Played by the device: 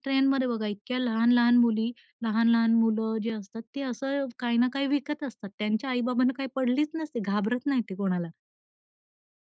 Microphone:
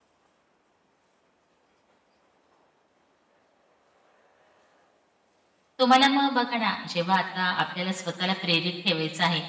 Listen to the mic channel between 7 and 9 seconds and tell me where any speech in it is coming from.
user only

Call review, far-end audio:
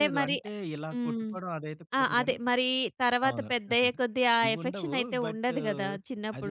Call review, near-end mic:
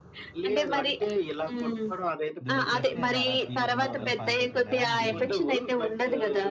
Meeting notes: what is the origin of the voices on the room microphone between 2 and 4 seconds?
both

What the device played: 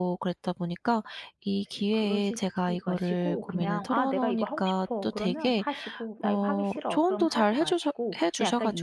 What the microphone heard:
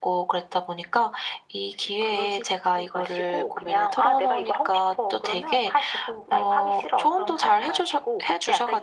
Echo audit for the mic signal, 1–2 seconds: echo only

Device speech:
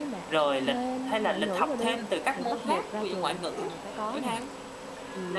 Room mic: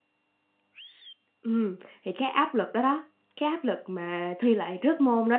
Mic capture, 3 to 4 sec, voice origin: user only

